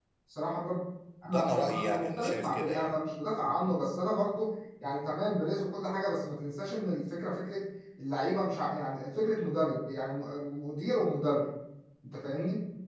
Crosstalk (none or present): present